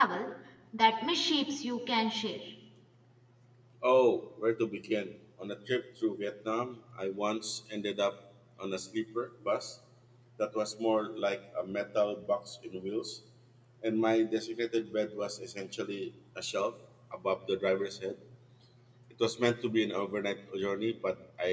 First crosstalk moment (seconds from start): none

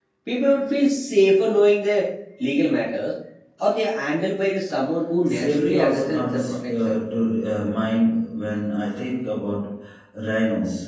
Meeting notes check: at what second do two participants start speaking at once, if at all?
5.3 s

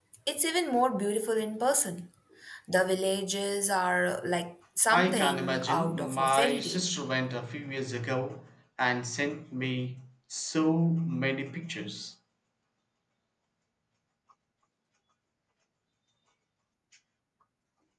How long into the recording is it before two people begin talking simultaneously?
4.9 s

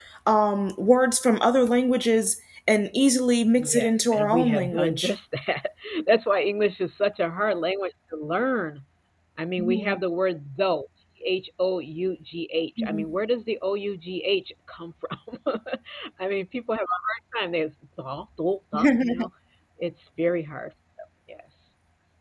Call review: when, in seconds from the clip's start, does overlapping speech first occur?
3.6 s

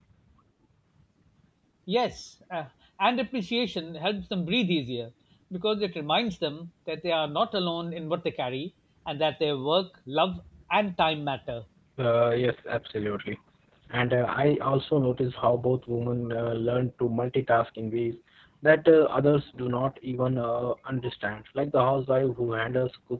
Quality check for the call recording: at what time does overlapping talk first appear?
none

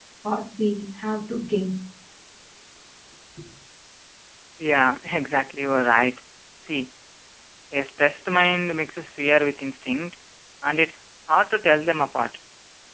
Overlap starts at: none

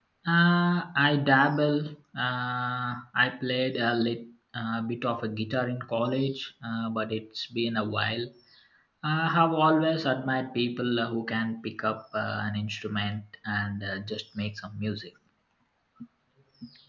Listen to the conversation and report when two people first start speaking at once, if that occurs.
none

